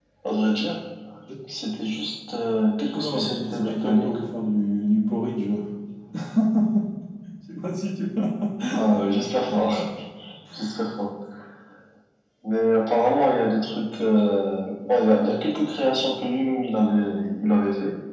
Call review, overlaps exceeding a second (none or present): present